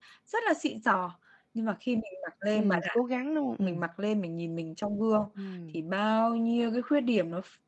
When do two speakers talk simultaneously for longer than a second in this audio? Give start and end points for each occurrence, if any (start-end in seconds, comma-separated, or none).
none